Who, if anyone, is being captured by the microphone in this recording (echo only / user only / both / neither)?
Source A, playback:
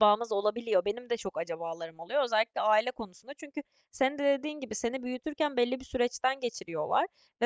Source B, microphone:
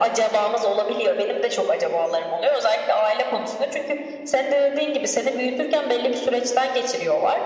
echo only